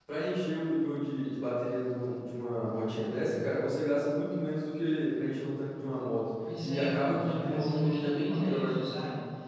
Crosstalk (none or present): present